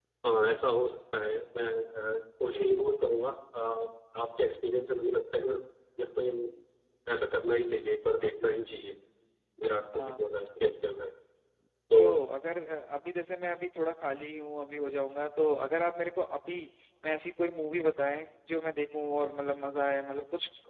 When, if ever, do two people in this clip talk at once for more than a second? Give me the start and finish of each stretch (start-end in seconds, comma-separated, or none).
none